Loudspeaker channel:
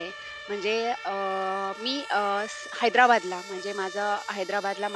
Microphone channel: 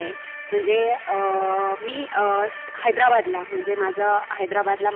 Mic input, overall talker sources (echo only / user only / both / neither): echo only